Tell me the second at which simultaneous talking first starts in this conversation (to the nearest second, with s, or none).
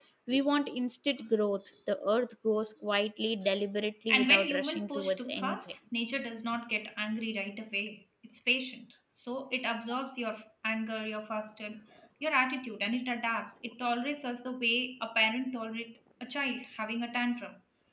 4 s